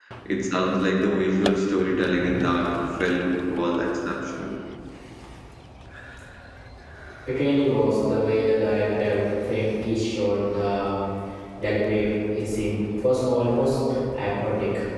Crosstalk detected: No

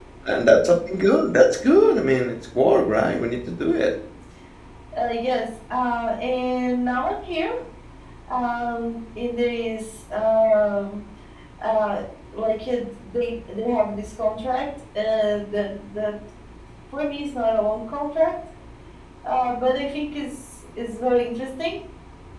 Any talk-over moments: No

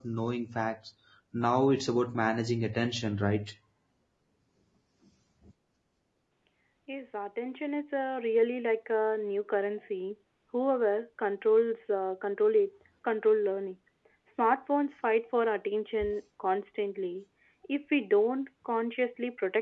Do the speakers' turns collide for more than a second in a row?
No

